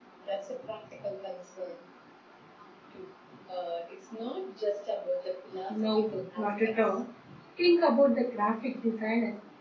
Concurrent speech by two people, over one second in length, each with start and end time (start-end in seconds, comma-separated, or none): 5.7-7.0